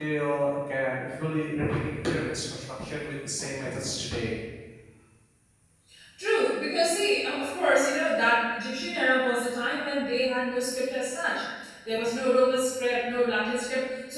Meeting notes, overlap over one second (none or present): none